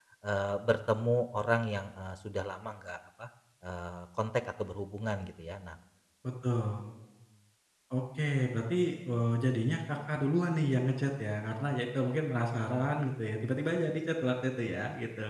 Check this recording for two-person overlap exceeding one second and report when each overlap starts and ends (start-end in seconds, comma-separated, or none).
none